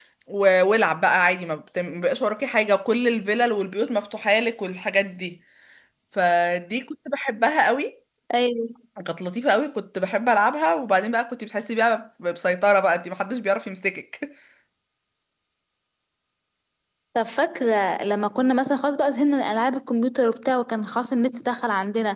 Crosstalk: none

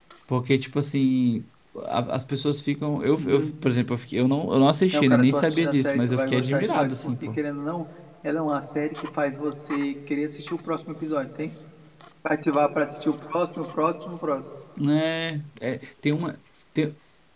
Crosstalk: present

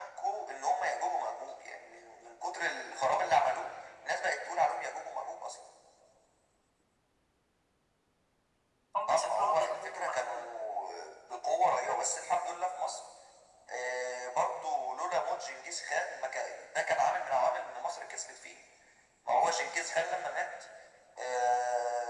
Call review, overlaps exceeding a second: present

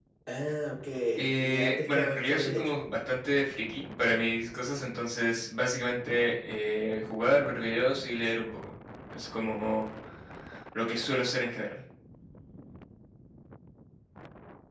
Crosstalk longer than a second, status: present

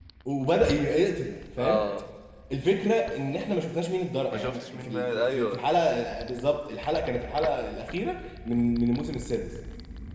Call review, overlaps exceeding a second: present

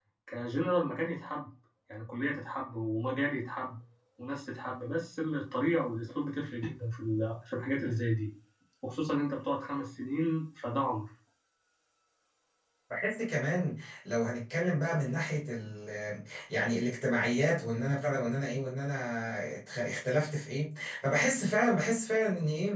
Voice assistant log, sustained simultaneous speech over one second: none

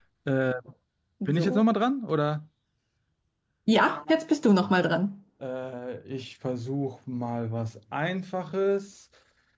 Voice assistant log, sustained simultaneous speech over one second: none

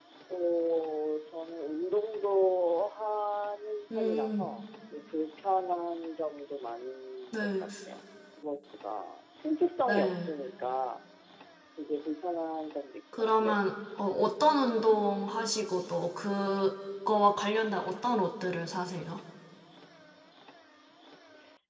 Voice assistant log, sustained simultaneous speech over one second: none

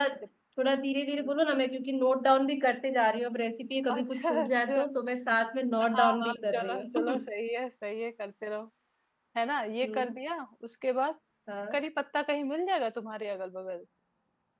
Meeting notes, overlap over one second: present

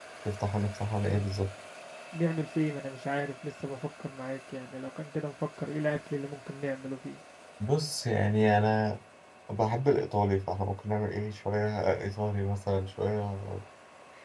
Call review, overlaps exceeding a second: none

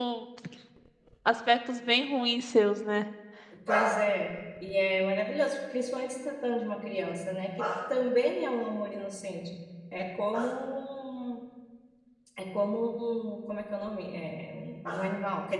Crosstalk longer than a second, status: none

